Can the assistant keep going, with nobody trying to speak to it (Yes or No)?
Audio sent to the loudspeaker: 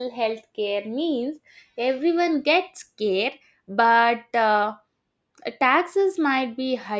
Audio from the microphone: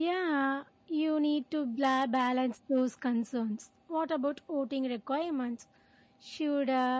No